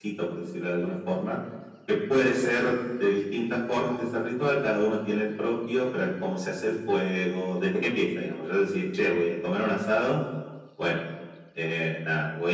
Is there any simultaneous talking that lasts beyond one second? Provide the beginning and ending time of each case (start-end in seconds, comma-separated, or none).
none